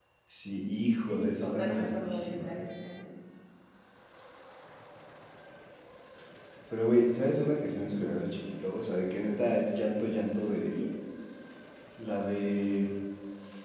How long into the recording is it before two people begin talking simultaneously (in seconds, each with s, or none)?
1.0 s